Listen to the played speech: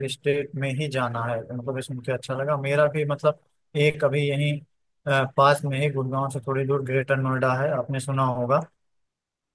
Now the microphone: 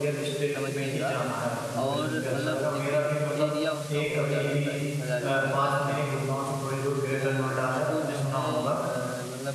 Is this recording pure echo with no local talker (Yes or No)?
No